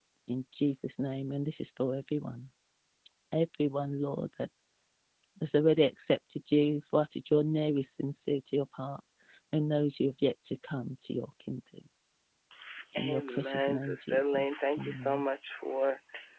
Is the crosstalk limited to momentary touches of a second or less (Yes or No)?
No